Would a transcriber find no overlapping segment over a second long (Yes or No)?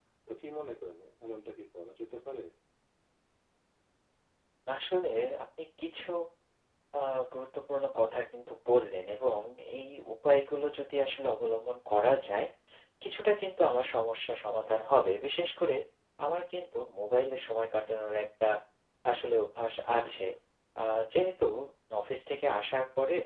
Yes